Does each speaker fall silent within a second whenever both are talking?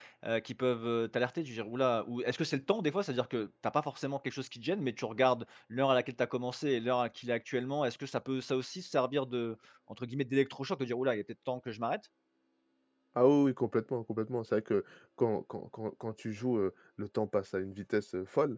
Yes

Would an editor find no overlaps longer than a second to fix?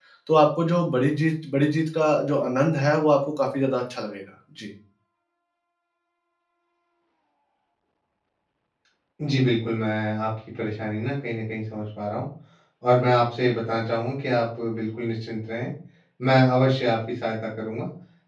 Yes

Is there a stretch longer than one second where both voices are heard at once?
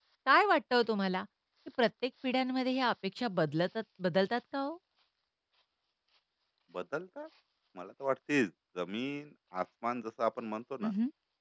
No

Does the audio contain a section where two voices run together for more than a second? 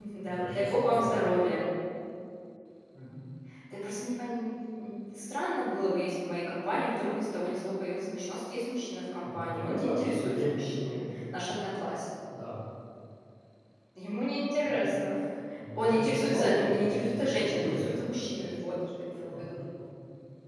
Yes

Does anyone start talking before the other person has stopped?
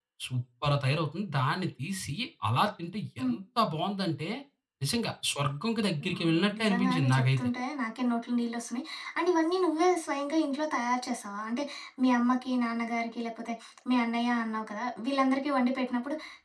Yes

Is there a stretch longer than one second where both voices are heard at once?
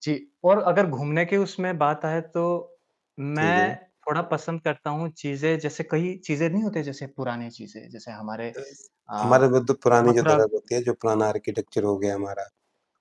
No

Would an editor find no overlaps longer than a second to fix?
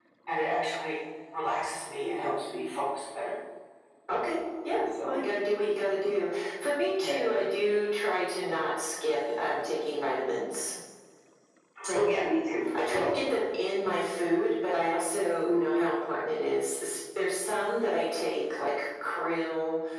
Yes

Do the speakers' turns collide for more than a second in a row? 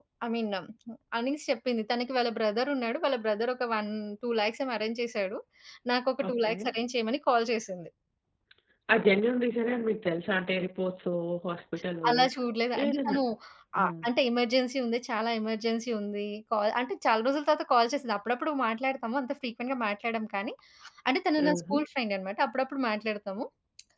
No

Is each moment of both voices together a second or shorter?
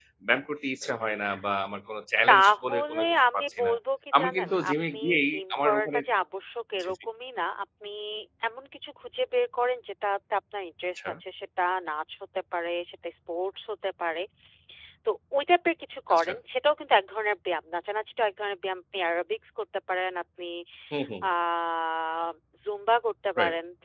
No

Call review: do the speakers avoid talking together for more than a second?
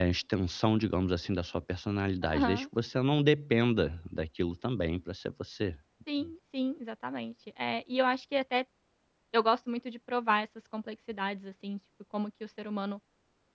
Yes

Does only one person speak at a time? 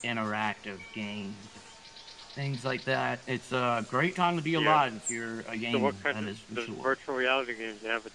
No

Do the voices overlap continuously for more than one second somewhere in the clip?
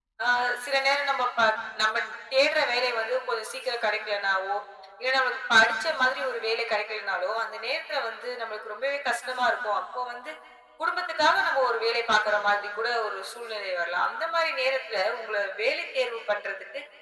No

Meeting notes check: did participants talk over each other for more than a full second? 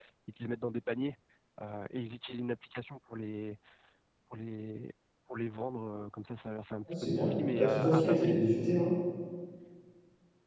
Yes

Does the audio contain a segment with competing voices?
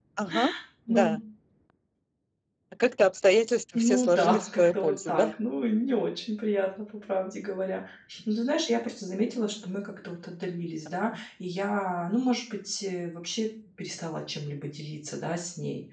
Yes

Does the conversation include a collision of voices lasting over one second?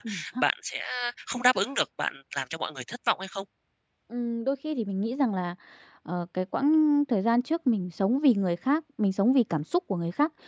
No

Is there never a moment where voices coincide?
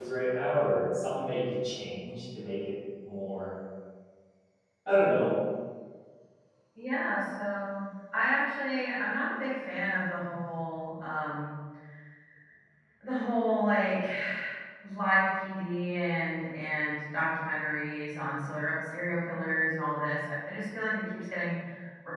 Yes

